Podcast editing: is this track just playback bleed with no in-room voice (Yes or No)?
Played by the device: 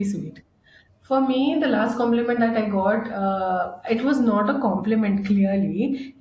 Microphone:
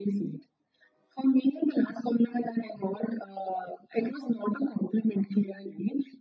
Yes